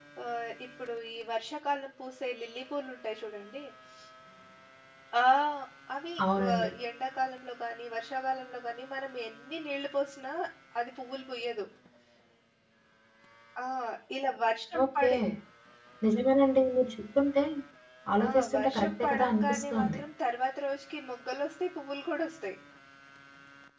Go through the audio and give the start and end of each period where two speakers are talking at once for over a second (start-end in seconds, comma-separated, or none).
18.3-20.0